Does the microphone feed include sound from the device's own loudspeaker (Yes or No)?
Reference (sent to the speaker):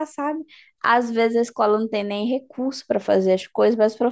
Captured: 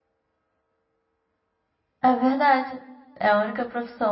No